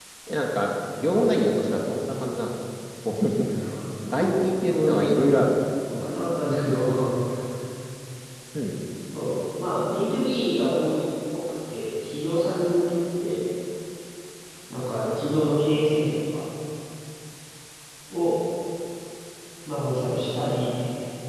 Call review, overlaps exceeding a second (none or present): present